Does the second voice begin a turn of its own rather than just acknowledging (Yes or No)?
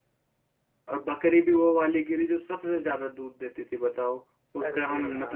No